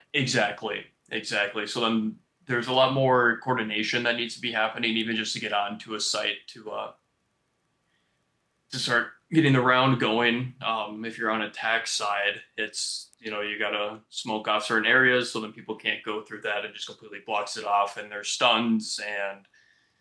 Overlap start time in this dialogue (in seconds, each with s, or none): none